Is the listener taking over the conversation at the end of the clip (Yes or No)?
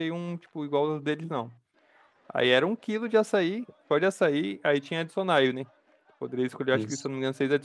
No